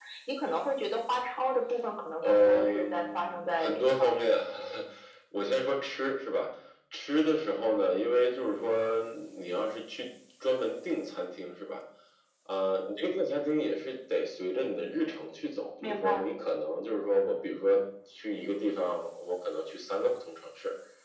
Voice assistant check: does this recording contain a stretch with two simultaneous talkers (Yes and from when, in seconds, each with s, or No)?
Yes, from 2.2 s